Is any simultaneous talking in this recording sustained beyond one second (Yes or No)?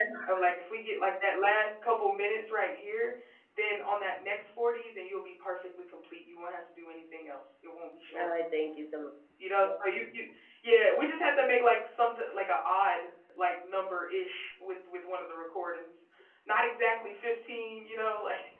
No